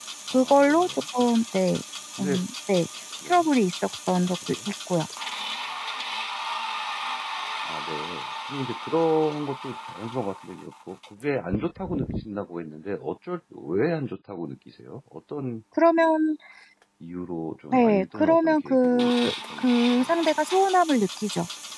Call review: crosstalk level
present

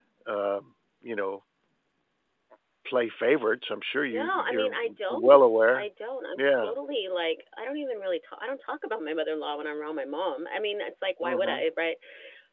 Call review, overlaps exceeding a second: present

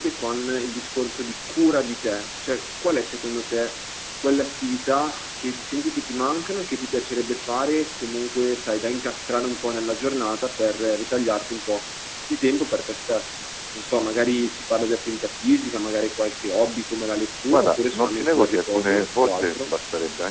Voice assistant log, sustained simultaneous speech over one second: present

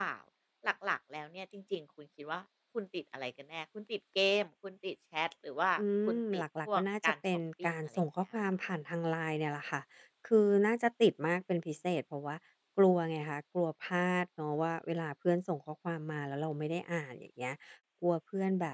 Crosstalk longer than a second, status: present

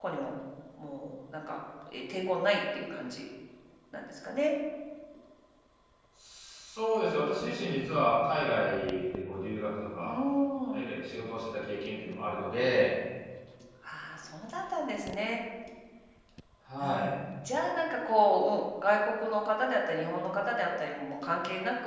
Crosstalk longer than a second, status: none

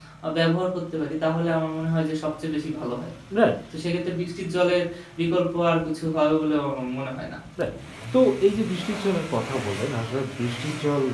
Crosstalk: none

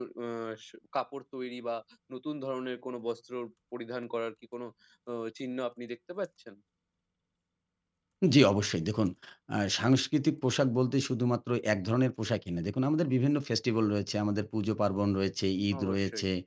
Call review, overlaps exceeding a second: none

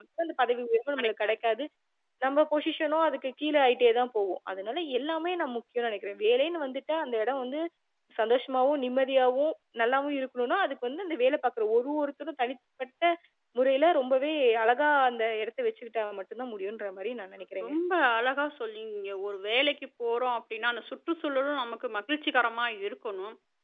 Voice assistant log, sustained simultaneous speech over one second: none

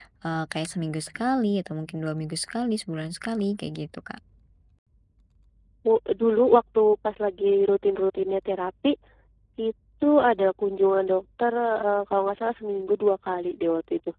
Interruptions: none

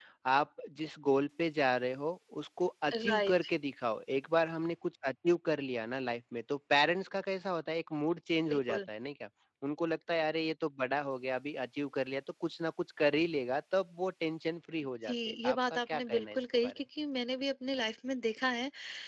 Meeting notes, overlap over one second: present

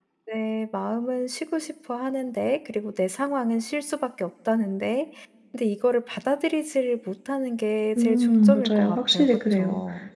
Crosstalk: present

